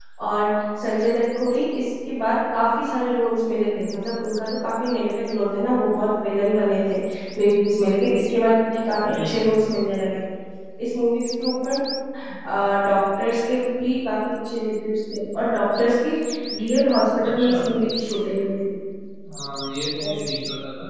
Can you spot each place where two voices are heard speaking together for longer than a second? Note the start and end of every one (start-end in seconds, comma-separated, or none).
none